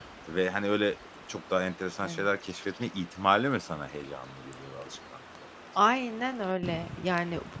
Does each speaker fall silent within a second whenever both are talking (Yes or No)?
Yes